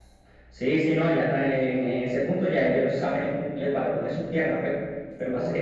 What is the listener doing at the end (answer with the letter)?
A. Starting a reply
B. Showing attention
B